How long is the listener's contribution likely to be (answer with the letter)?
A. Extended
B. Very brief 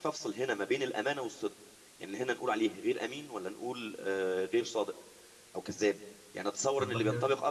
B